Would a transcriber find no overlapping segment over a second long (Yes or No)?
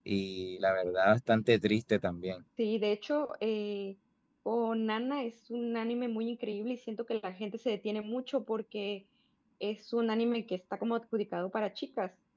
Yes